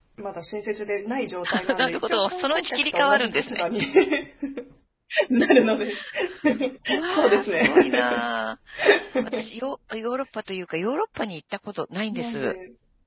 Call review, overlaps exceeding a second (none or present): present